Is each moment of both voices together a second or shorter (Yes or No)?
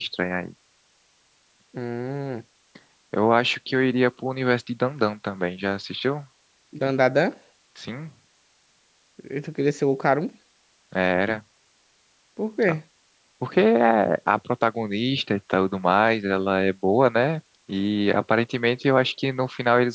Yes